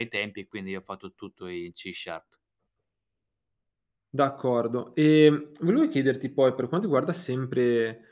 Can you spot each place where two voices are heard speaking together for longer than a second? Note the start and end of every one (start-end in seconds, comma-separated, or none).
none